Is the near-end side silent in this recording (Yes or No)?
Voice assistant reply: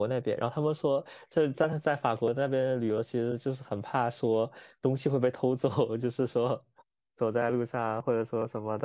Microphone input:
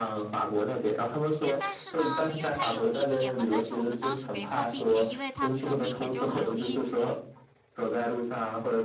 No